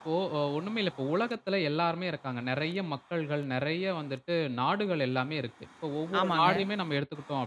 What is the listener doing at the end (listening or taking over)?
listening